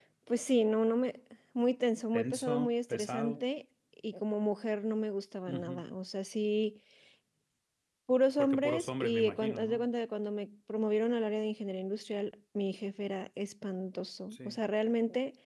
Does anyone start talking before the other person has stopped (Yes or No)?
Yes